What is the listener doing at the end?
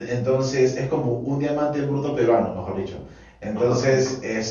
listening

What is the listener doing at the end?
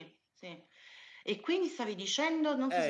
taking over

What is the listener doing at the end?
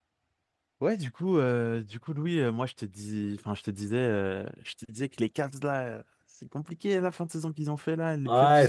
taking over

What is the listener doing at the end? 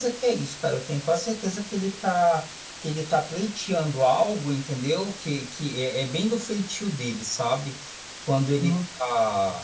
listening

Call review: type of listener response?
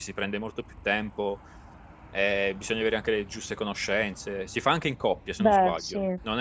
listening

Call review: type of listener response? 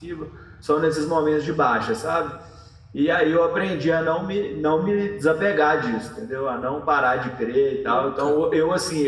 listening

